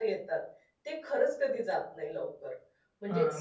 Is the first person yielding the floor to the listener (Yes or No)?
Yes